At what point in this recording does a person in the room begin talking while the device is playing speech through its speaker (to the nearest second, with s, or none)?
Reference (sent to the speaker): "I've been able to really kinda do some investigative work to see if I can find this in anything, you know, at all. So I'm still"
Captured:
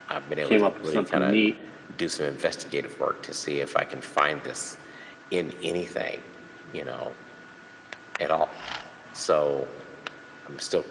0 s